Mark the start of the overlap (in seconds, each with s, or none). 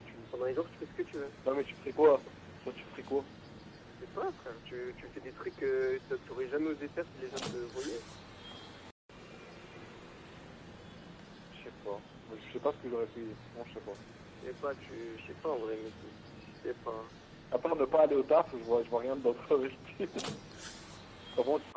none